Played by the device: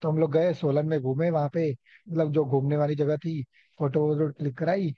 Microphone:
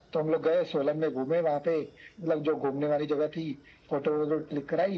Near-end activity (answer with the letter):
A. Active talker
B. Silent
B